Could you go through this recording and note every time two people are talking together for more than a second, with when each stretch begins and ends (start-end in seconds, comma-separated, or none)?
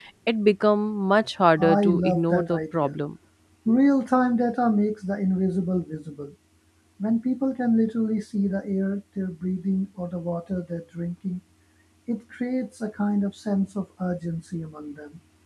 1.6-2.9